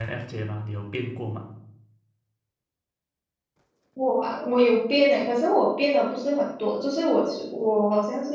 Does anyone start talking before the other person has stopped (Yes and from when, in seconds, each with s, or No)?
No